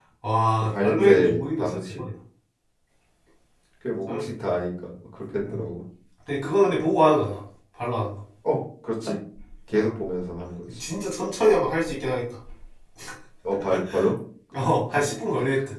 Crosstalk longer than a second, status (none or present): present